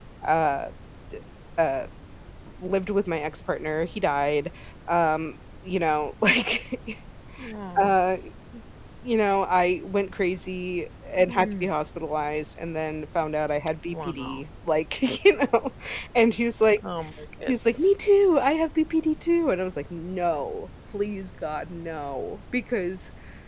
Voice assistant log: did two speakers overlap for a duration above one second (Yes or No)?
No